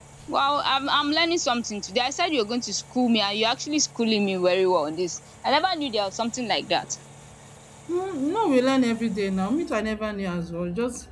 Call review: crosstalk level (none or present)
none